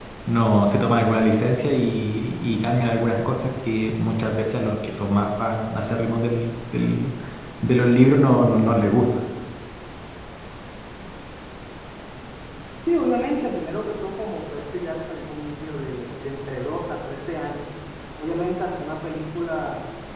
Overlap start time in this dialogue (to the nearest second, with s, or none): none